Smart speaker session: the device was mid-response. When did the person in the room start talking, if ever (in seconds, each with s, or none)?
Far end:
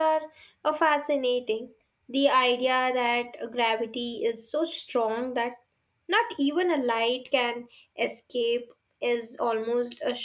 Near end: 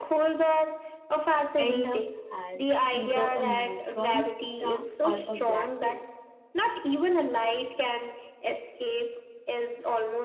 1.6 s